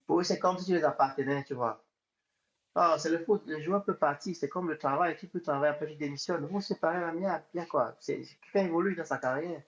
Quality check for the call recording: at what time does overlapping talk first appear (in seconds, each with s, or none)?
none